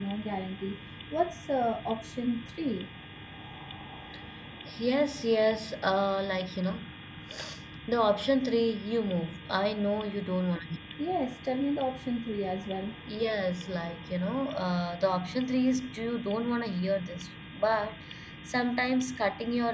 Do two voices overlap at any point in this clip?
No

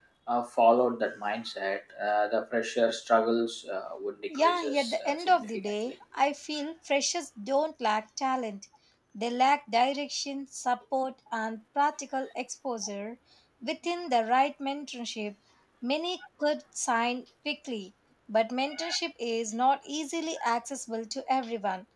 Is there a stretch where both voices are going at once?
Yes, from 4.3 s

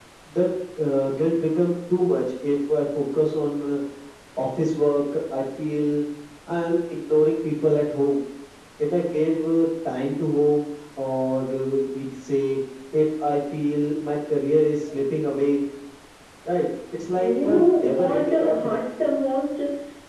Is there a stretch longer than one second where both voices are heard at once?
Yes, from 17.2 s

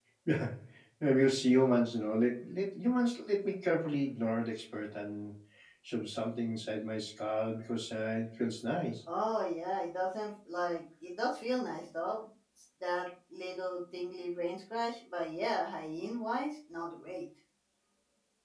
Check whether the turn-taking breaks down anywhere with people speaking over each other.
No

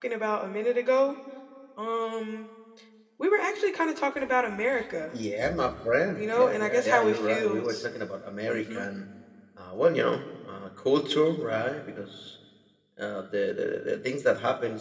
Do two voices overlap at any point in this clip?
Yes, from 6.2 s

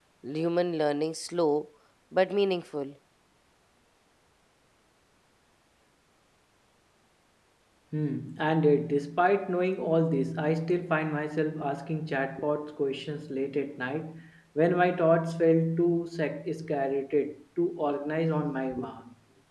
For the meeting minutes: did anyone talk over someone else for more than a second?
No

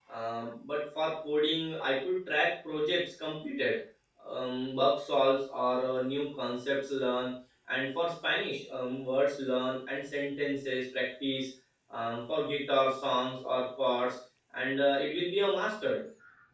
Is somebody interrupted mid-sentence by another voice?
No

